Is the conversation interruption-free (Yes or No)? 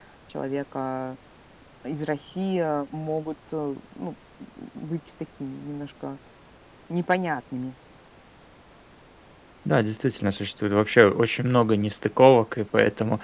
Yes